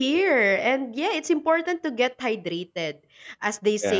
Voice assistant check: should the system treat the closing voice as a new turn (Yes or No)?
No